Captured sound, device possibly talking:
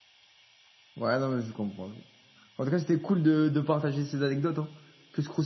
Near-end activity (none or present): present